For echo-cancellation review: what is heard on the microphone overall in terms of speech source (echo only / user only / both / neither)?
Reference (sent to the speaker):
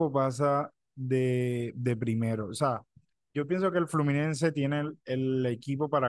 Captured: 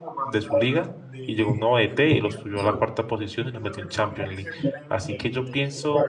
both